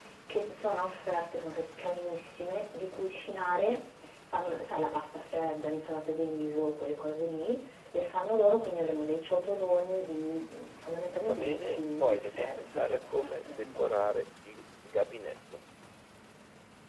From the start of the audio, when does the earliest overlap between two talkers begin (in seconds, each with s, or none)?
11.2 s